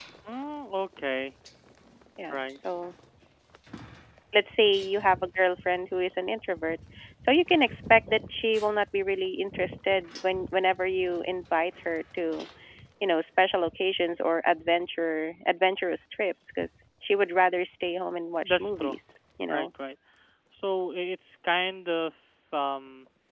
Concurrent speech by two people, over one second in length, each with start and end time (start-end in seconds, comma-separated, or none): none